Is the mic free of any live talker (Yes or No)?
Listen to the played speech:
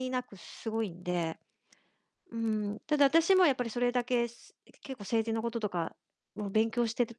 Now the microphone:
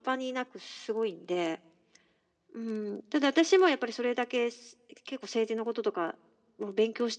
Yes